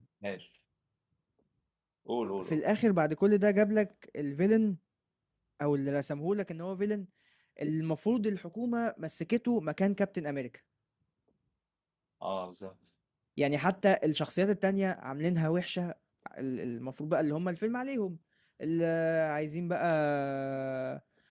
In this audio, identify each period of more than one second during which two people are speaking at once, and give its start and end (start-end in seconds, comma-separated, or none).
none